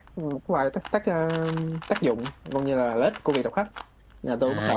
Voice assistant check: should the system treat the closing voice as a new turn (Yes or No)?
Yes